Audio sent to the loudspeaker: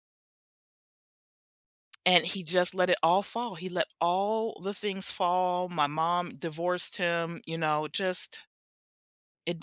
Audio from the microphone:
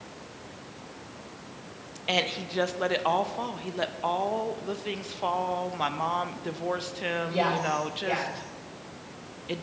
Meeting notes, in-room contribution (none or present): present